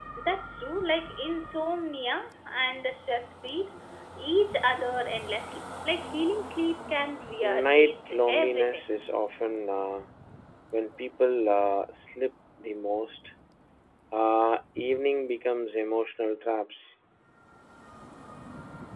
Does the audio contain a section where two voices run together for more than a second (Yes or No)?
Yes